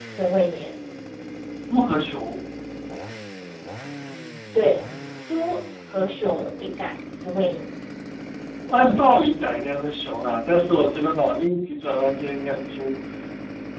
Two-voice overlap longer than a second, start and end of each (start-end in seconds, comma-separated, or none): none